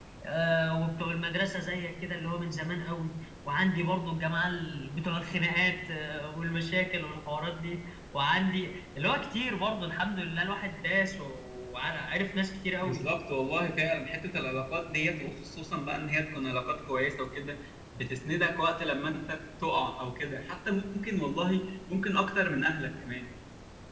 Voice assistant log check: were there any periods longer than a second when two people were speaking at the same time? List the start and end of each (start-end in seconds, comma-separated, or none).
none